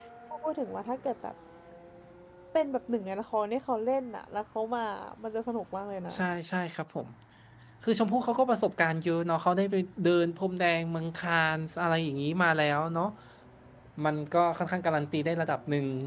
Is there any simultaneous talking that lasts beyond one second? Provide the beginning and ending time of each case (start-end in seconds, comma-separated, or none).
none